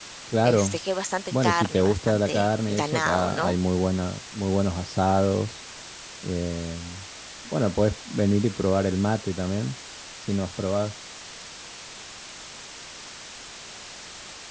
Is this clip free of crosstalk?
No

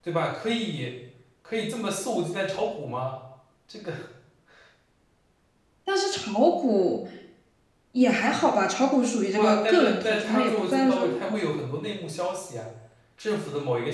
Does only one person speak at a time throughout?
No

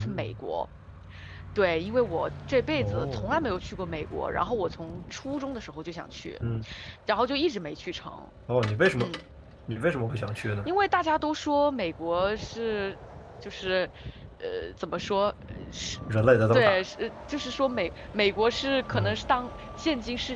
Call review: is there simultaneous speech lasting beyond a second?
No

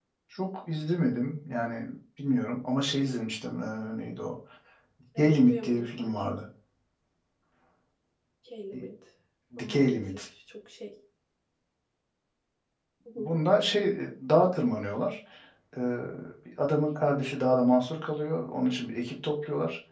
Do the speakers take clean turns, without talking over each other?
No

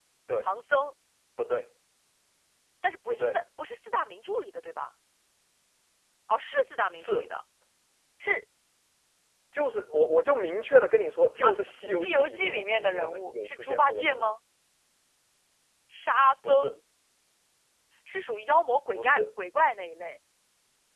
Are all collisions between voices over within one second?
No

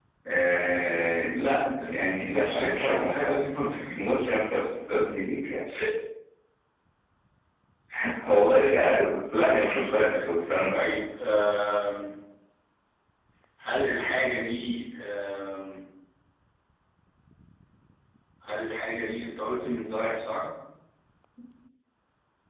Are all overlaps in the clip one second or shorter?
No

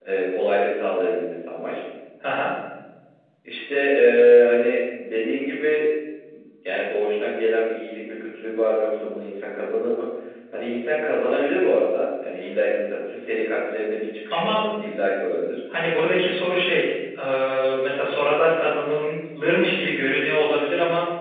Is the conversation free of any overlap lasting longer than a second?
Yes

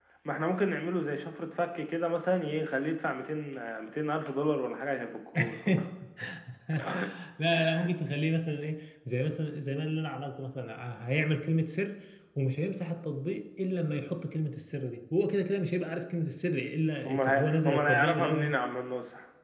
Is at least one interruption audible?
Yes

